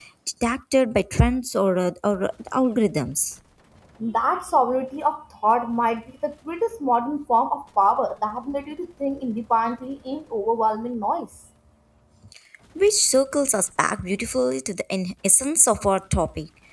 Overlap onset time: none

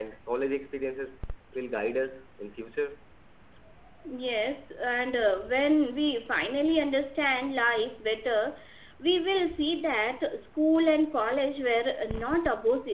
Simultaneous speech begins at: none

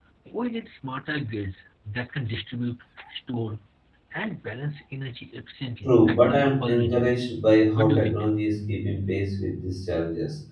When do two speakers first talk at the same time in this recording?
5.8 s

